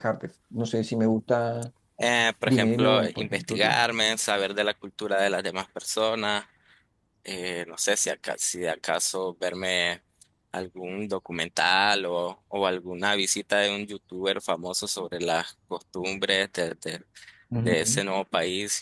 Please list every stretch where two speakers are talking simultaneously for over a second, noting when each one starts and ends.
2.5-3.8

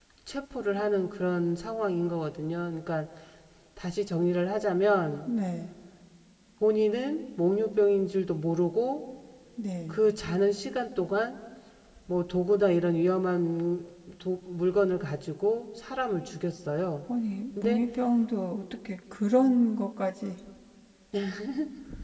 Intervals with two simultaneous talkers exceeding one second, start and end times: none

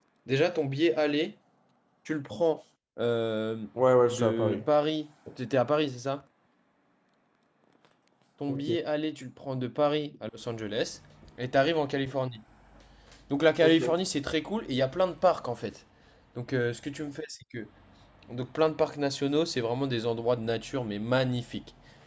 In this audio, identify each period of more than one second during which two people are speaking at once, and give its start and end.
none

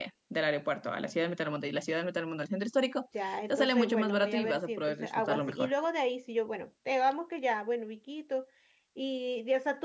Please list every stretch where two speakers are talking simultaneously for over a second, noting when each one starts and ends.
3.5-5.7

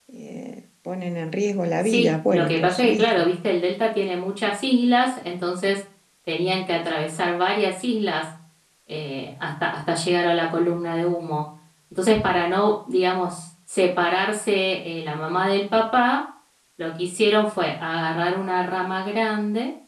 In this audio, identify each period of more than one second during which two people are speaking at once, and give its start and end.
1.8-3.3

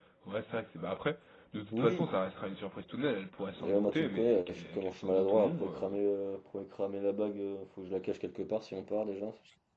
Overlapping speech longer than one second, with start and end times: 3.6-6.0

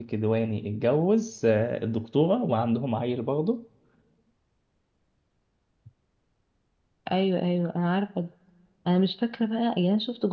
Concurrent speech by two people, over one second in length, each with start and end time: none

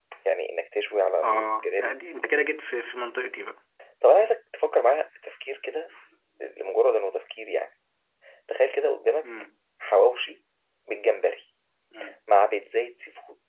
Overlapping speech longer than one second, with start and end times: none

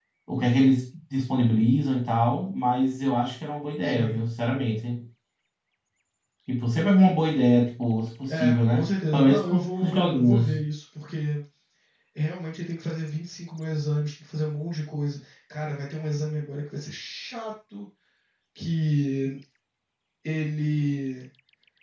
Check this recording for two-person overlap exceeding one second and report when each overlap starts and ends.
8.3-10.6

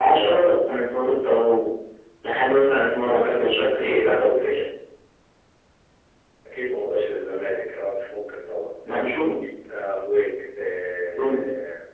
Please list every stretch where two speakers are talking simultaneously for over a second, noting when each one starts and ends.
3.0-4.6

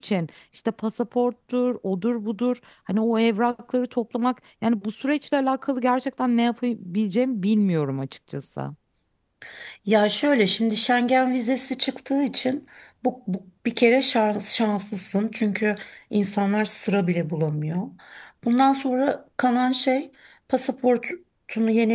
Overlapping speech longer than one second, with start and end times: none

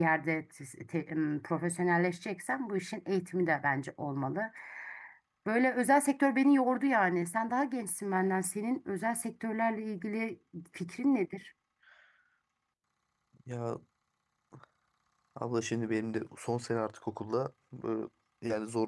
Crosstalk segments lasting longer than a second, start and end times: none

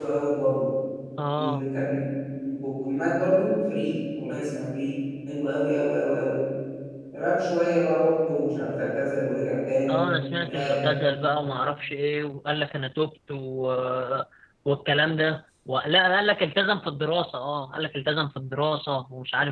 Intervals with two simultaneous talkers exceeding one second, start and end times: none

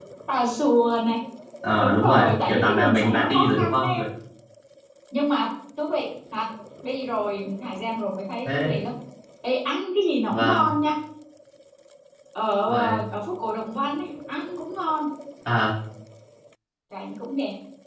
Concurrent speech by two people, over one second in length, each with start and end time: 1.8-4.0

